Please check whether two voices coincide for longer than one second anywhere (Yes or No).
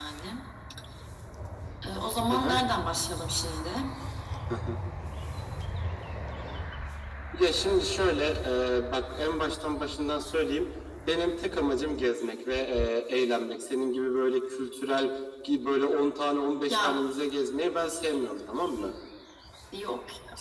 No